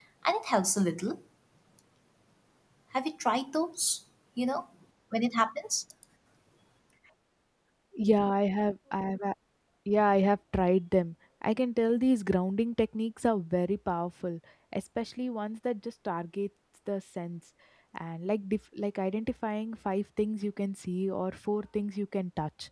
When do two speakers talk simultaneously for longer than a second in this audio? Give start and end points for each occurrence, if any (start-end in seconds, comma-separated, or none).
none